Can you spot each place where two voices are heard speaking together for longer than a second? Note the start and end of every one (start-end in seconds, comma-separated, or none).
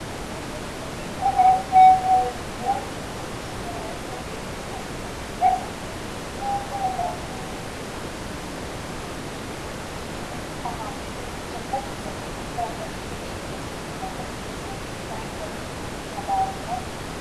none